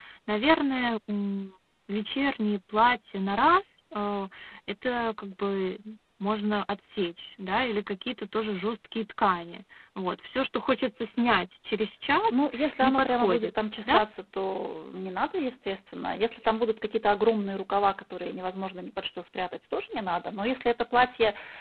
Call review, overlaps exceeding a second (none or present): present